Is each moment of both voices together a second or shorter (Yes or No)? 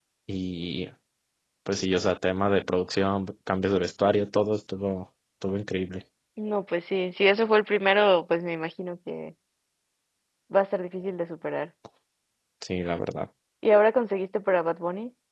Yes